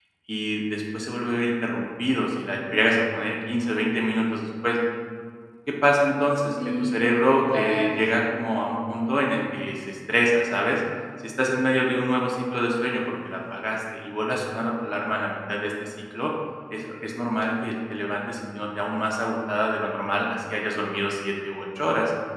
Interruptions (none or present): present